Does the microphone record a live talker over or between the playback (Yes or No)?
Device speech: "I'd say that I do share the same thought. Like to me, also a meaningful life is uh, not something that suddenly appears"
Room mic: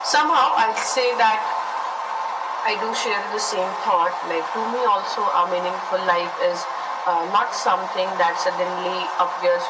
No